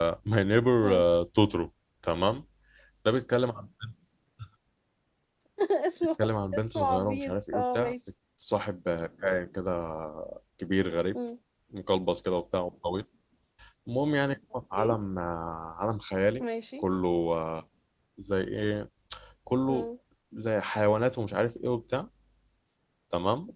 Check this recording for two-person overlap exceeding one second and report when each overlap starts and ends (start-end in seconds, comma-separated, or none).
6.5-7.9